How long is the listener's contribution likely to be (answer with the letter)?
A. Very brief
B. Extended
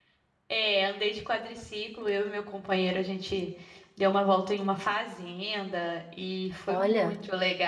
A